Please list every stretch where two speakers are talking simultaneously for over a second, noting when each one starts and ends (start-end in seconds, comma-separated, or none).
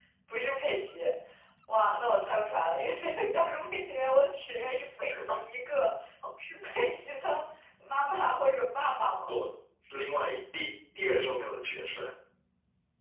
none